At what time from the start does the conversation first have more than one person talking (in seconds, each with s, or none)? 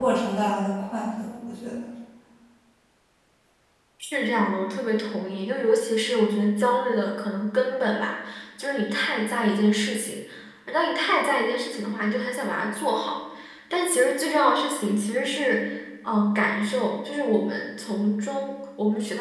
none